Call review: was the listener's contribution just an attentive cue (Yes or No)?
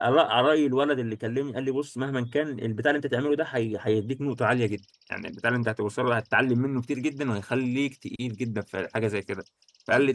Yes